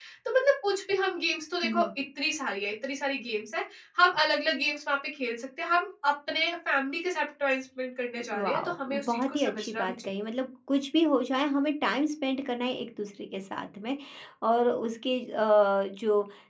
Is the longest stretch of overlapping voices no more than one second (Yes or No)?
No